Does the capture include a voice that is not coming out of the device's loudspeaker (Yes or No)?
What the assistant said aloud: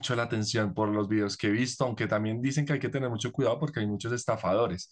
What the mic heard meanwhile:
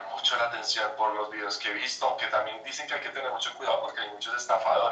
No